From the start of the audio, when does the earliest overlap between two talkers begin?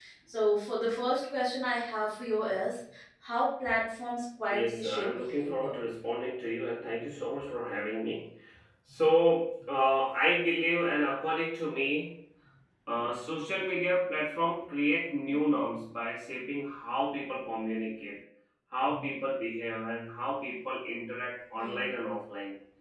4.5 s

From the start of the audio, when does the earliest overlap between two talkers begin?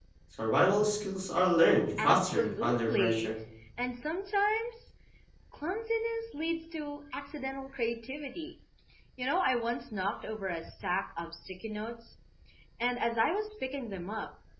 1.9 s

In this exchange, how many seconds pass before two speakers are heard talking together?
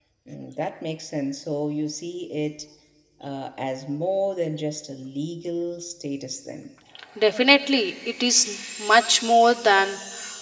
none

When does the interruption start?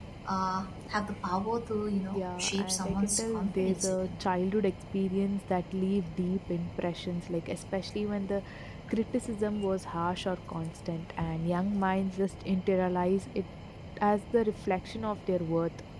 2.1 s

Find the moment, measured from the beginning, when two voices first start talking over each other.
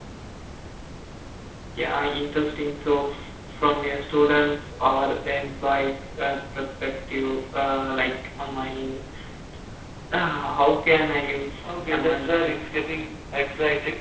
11.6 s

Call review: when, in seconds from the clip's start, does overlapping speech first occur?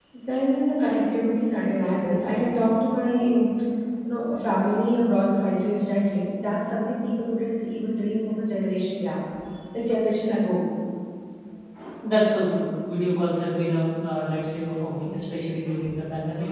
none

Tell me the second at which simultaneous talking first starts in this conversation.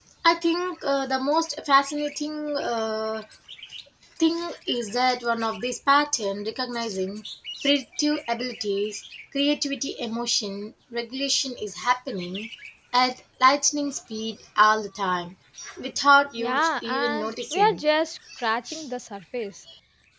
16.4 s

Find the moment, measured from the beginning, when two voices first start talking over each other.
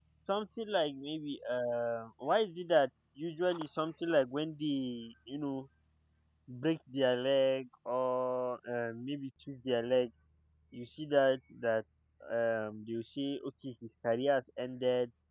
none

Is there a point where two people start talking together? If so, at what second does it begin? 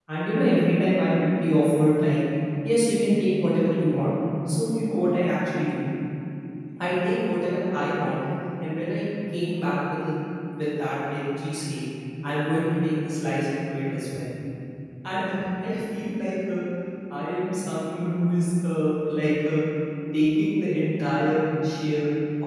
none

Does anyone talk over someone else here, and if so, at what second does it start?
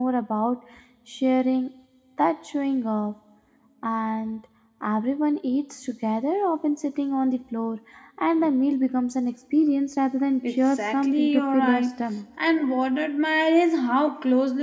10.4 s

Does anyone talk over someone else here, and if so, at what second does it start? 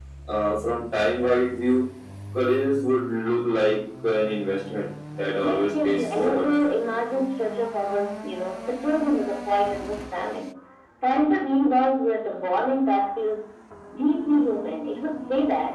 5.3 s

